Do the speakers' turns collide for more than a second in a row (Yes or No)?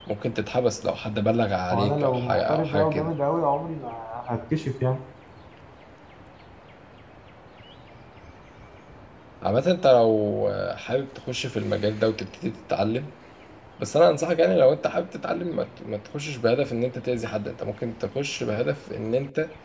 Yes